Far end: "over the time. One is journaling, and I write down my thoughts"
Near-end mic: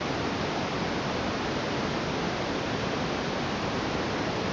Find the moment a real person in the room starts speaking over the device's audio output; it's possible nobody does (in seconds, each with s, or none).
none